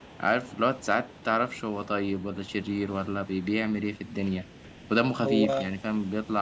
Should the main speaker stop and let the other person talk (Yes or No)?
No